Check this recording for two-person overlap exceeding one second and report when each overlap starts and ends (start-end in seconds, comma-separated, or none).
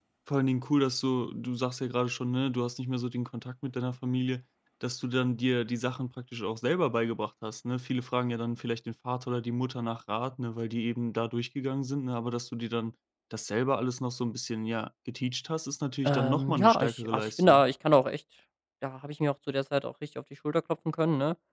16.0-17.6